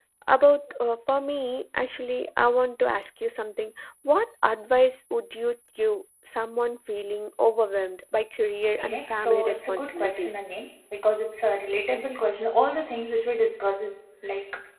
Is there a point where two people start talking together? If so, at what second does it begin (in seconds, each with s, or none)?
8.7 s